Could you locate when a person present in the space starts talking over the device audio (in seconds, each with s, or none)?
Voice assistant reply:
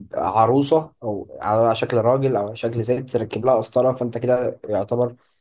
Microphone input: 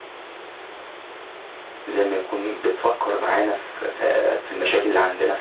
1.8 s